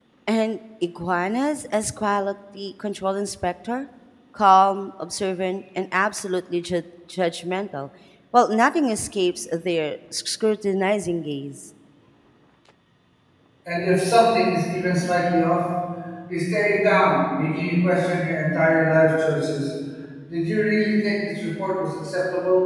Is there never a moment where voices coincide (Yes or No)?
Yes